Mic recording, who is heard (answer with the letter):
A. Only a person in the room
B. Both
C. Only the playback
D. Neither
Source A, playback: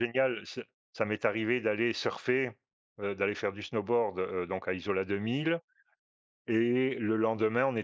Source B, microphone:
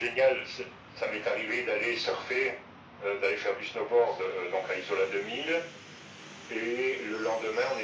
C